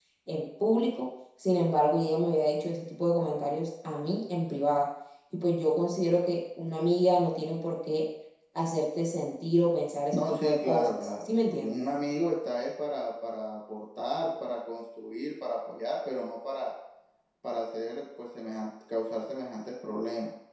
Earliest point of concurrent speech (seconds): 10.1 s

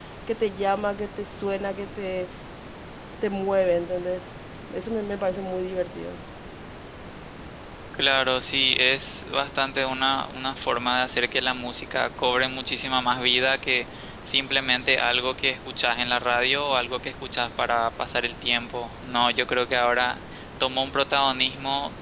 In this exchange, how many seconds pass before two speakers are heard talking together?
none

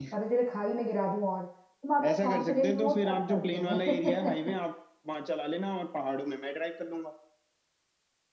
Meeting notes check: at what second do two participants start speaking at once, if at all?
2.0 s

